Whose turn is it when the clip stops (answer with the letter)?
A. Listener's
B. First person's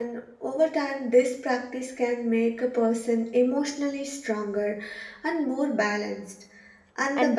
B